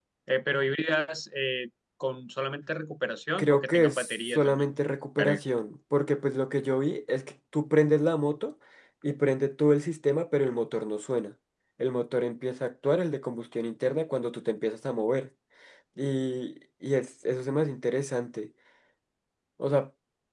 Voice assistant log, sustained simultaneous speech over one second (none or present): present